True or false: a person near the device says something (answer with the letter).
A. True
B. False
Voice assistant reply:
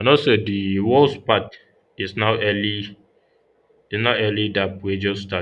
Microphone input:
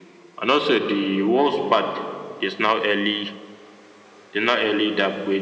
B